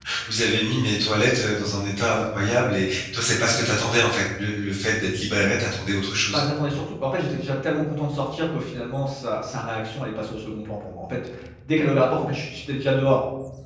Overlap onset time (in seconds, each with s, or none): none